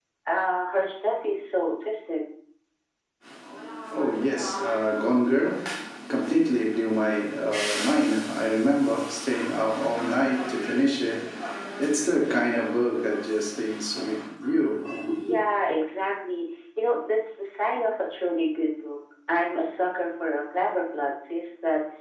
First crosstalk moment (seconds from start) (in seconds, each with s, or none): none